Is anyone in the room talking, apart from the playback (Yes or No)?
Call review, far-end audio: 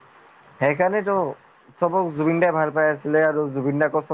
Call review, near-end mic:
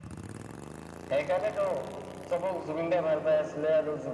No